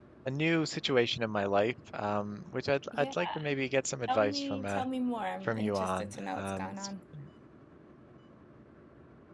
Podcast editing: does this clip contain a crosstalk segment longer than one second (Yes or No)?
Yes